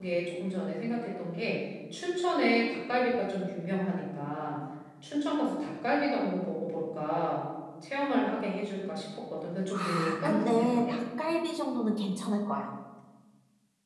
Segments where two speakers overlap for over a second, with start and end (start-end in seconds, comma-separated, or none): 9.7-11.0